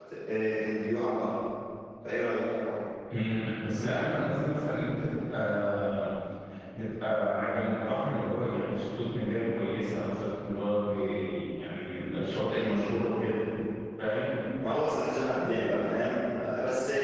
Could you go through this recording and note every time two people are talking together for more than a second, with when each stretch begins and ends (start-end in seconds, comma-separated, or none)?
none